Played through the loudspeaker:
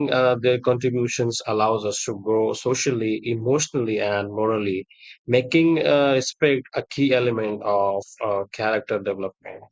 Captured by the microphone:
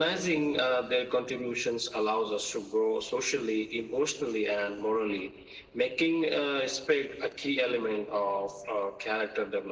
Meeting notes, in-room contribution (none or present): none